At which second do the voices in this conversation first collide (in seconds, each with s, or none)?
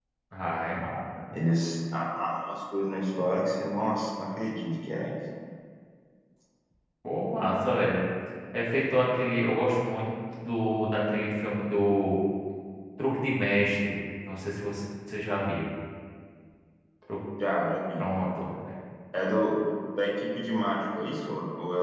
none